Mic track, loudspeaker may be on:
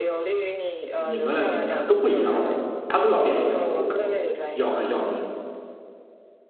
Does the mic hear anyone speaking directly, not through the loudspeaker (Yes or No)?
Yes